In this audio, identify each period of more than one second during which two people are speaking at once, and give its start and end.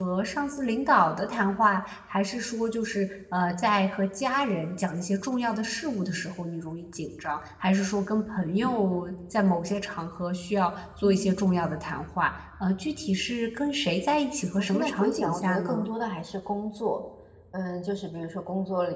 14.6-15.8

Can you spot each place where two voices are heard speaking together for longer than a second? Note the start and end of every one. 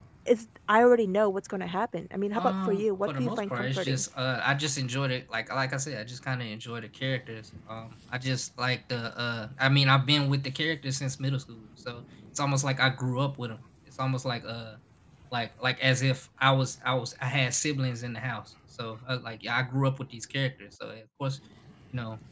2.4-4.0

